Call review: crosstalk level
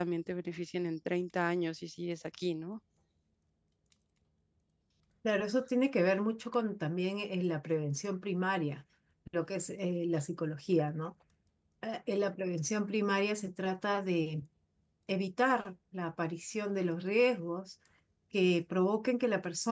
none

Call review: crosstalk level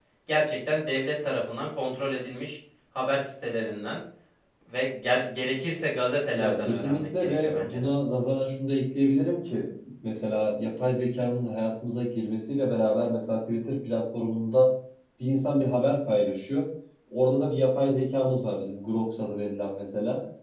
present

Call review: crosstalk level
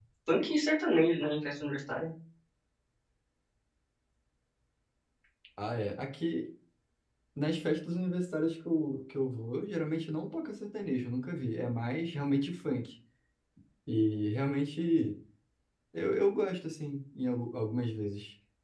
none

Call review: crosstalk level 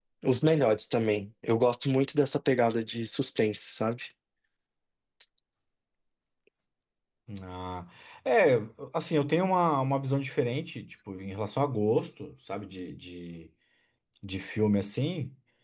none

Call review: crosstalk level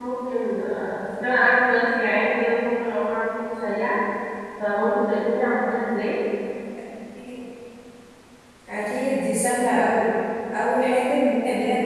none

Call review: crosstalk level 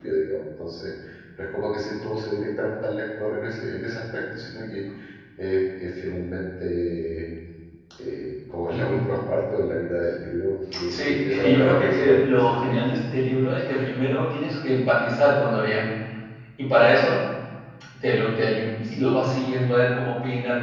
present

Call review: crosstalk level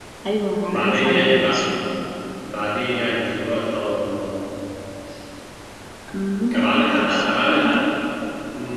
present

